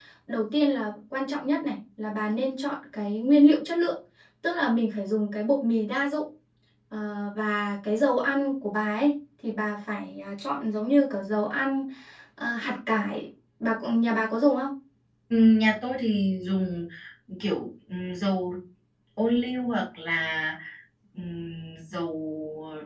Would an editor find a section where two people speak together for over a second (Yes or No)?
No